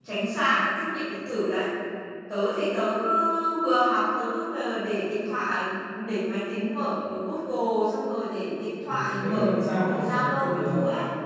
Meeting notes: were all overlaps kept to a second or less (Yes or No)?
No